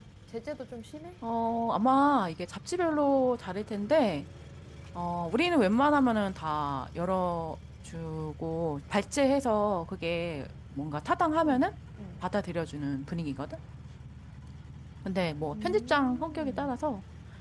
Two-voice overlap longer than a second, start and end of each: 15.5-16.7

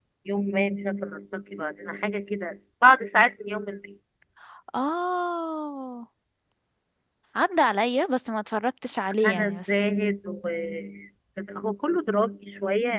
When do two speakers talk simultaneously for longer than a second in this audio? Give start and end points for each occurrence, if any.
none

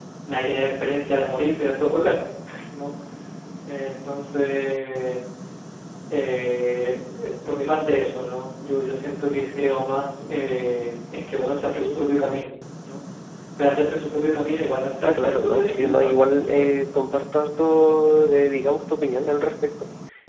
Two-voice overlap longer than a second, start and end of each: 15.0-16.6

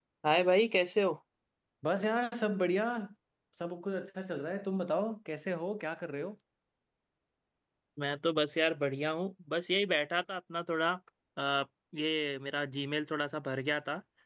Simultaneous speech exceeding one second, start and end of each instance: none

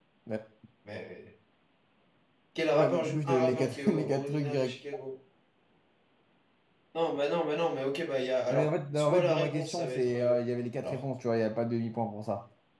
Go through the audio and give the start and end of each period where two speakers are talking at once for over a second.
2.7-4.7, 8.5-10.3

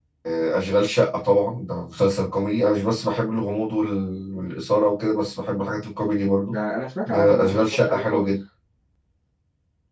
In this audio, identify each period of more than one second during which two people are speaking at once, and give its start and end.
7.1-8.3

